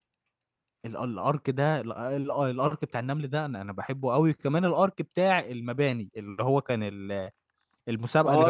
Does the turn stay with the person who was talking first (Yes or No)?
No